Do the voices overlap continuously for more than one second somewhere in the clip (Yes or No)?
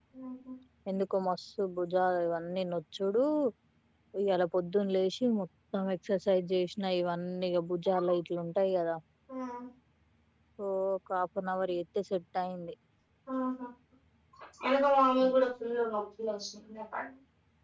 No